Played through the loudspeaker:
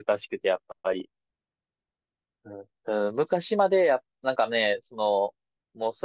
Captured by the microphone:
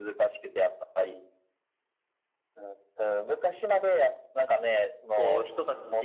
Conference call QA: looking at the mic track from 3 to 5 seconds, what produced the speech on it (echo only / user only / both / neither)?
echo only